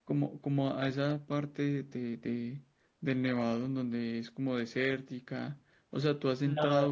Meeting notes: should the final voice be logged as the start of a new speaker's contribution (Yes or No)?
No